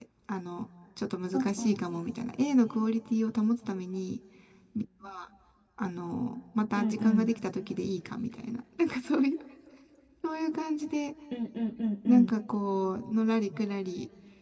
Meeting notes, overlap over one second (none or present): none